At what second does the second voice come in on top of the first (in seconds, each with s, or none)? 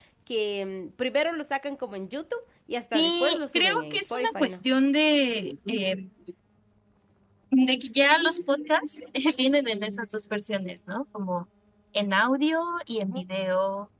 2.8 s